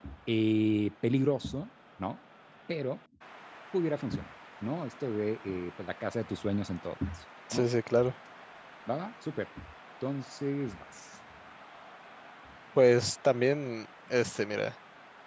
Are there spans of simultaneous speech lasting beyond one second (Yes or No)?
No